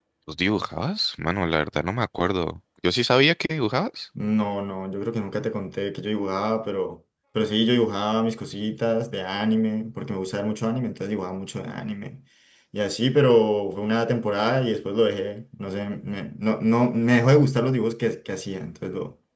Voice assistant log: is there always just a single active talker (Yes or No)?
Yes